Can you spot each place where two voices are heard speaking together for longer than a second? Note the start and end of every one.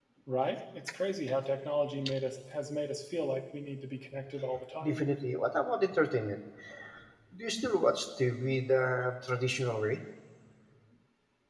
none

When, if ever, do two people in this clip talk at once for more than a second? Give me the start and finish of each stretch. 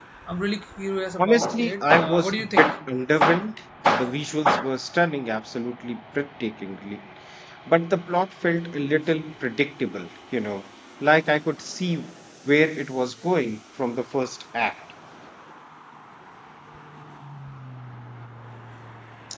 1.2-2.6

